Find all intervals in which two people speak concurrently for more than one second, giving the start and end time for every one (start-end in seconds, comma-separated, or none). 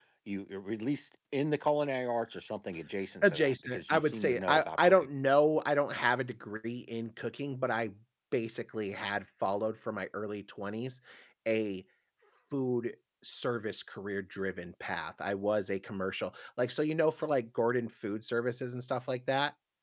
3.2-5.1